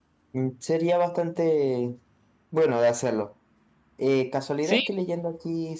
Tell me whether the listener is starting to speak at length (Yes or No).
No